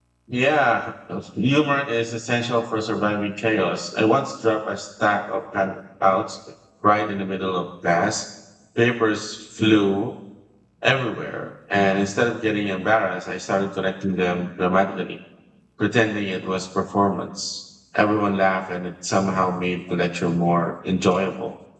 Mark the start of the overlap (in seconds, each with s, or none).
none